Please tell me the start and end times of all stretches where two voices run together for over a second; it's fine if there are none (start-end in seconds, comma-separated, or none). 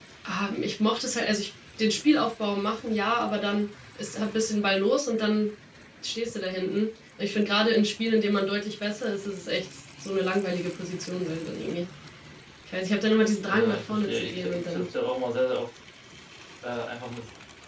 13.5-14.9